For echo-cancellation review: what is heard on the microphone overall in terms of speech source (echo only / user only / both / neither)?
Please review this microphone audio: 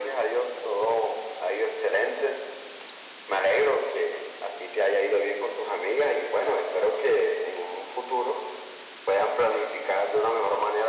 echo only